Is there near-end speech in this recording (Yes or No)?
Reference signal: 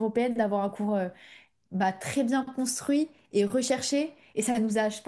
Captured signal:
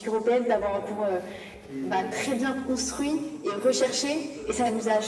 Yes